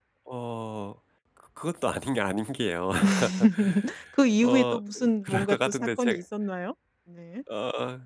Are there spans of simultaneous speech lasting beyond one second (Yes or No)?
Yes